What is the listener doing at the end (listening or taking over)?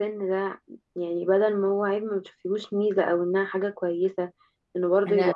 listening